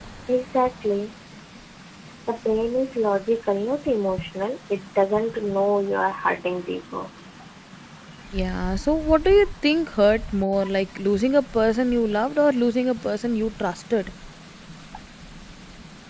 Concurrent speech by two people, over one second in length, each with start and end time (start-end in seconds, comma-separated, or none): none